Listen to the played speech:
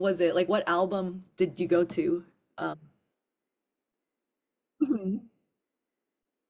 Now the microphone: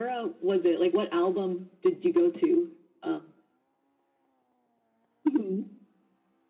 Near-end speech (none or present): none